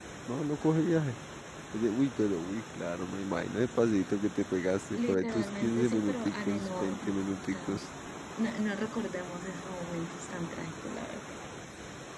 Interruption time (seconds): 5.0 s

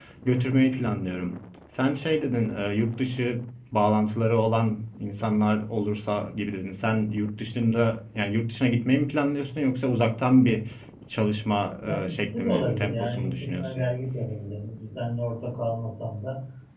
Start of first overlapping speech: 11.8 s

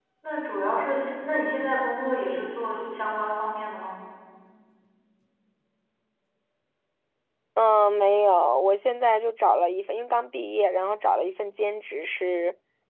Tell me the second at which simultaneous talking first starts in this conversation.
none

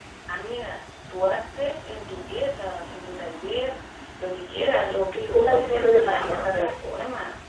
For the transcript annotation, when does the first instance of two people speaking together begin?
5.1 s

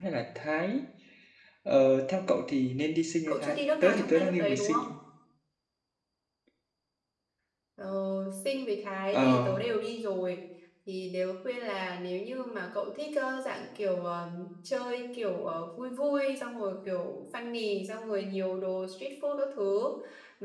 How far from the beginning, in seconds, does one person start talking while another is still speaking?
3.3 s

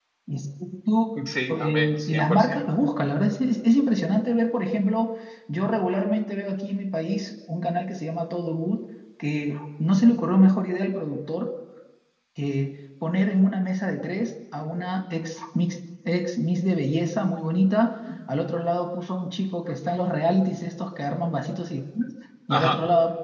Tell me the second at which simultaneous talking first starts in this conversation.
1.6 s

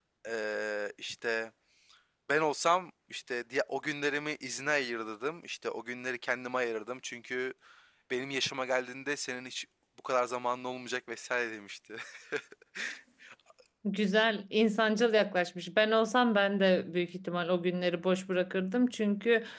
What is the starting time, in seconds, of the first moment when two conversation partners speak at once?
none

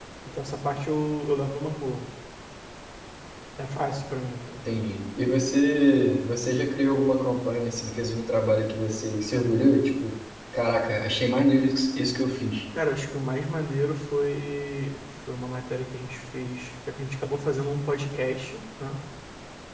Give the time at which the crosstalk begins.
none

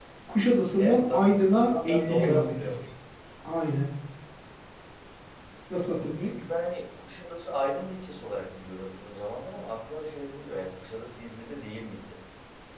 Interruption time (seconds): 0.8 s

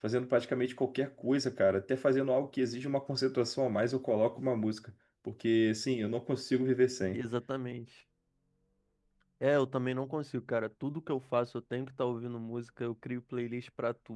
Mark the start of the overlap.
none

